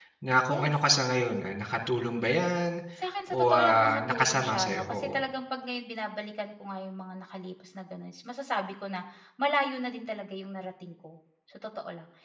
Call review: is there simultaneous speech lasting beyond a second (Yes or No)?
Yes